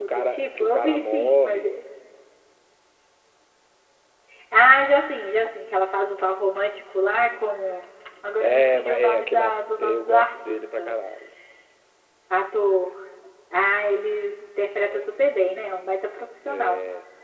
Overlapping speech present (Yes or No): Yes